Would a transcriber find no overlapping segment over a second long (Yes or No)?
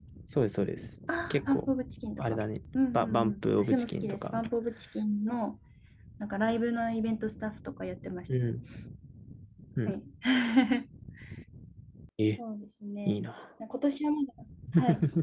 No